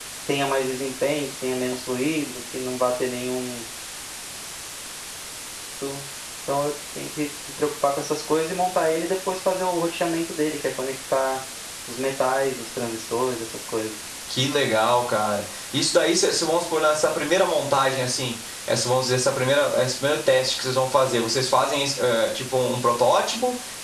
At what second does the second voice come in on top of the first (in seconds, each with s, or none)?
none